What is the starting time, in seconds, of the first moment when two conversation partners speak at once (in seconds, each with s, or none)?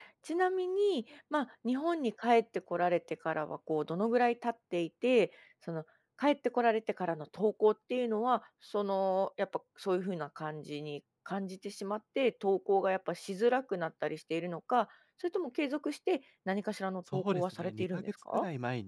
17.1 s